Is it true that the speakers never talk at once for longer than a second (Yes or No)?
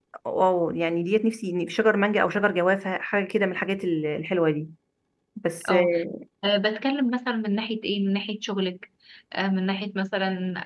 Yes